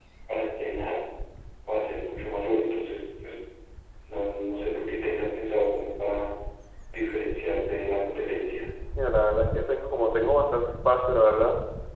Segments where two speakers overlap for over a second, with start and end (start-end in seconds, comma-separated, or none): none